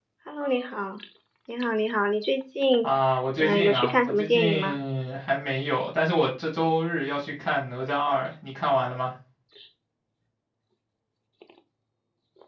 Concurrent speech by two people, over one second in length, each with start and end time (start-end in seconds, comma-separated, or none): 3.4-4.8